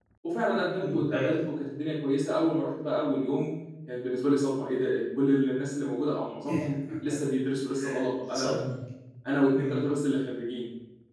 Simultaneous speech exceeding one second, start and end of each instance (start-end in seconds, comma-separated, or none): none